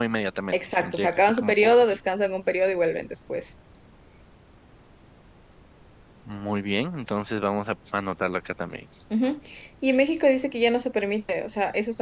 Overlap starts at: 1 s

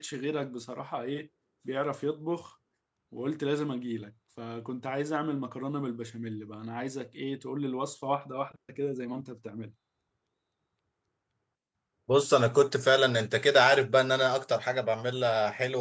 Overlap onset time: none

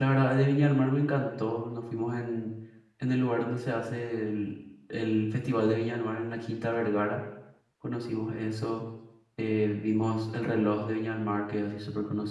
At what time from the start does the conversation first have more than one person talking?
none

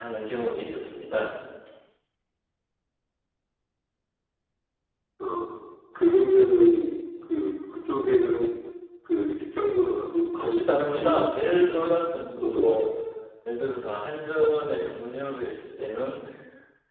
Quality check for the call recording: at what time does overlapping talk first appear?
10 s

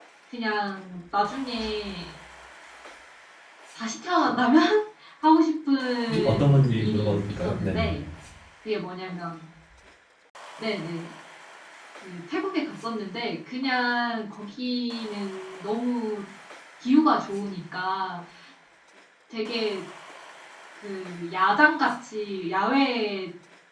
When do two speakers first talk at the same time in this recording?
6 s

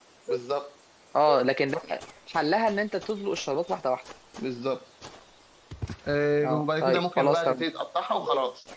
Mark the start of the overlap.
6 s

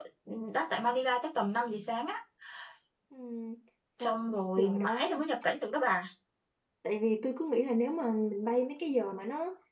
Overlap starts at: 4 s

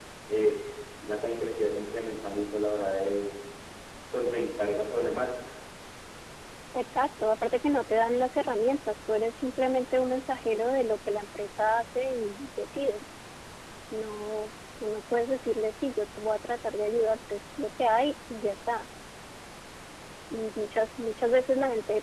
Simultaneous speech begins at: none

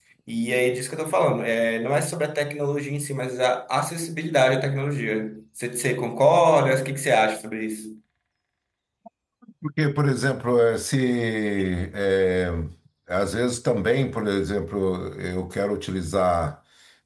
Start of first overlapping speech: none

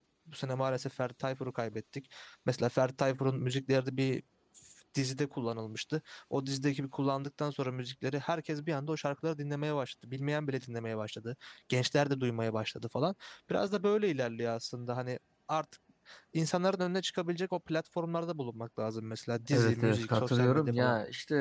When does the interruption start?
20 s

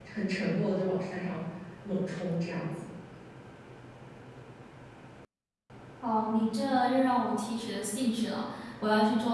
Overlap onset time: none

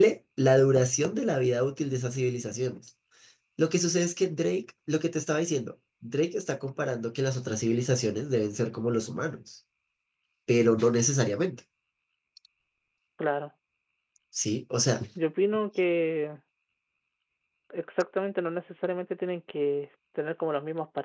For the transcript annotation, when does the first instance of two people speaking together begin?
none

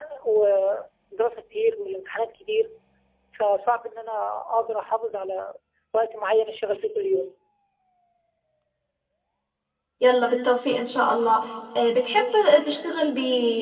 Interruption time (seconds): none

